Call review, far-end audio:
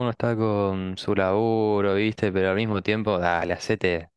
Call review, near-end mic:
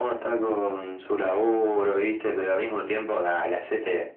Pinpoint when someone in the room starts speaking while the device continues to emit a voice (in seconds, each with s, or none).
none